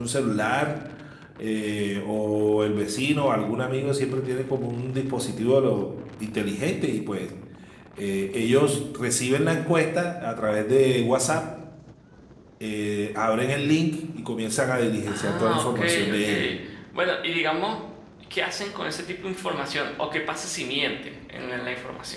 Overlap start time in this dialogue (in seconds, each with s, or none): 15.1 s